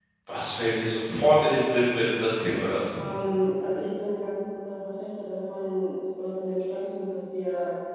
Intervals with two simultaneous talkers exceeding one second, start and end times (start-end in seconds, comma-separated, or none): none